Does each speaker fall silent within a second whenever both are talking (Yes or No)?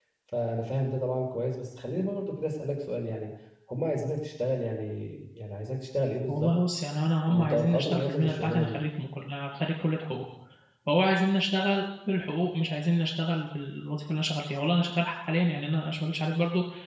No